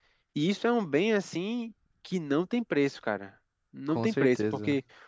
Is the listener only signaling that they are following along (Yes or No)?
Yes